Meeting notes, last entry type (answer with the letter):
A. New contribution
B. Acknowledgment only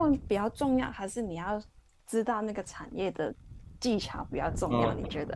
A